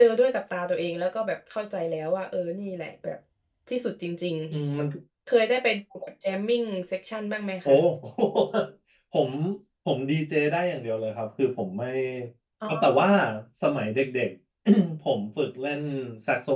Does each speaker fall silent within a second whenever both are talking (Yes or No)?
Yes